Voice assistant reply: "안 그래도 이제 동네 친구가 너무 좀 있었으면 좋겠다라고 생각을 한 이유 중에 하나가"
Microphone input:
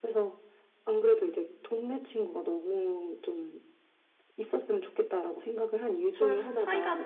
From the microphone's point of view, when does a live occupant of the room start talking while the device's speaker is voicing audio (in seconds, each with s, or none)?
6.1 s